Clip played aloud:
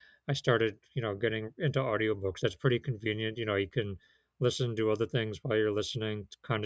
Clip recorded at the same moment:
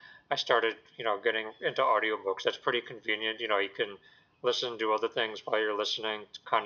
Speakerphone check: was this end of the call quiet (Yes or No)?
Yes